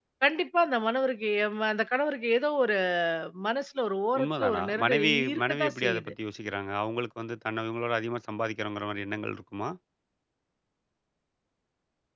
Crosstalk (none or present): present